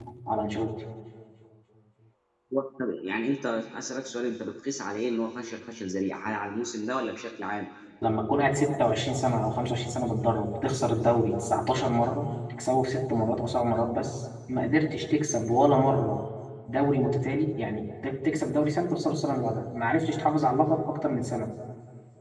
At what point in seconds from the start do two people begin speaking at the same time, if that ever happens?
none

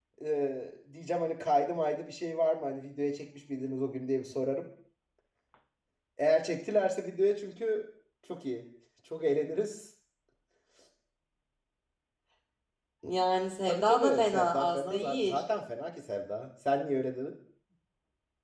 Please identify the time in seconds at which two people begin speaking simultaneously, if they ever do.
13.7 s

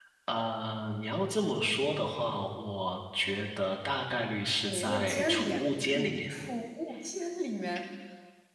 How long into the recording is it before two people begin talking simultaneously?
4.4 s

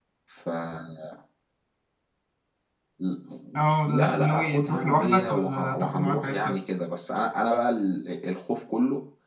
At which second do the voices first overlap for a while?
3.9 s

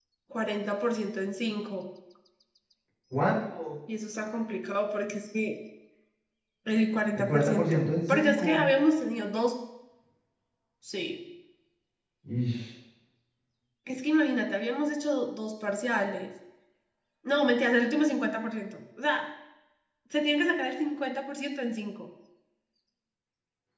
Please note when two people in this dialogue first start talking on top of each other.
7.2 s

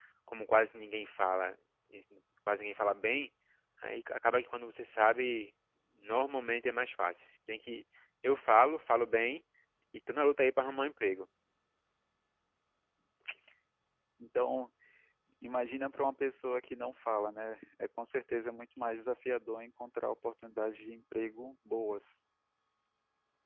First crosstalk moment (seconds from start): none

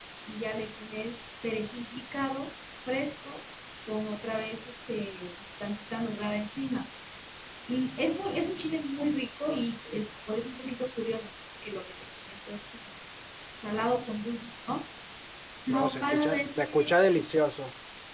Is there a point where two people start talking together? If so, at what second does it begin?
15.7 s

